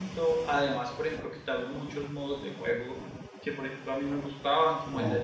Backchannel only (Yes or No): Yes